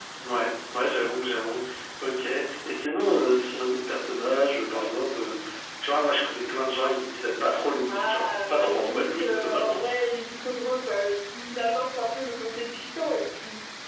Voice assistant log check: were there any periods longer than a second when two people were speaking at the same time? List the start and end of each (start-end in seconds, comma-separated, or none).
7.9-9.8